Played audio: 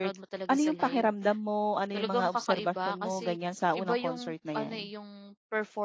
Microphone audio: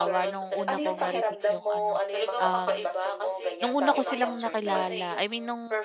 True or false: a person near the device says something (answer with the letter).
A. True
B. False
A